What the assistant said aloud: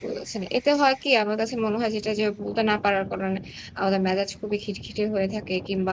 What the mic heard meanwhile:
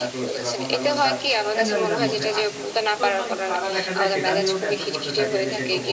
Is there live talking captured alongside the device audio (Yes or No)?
Yes